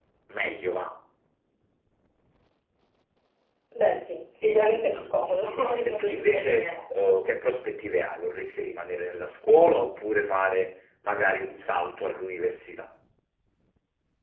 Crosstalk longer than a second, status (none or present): present